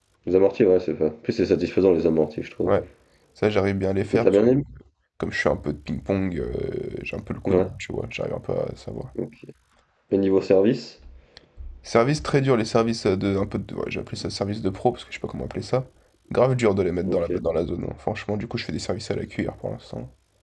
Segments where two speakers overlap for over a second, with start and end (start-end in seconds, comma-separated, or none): none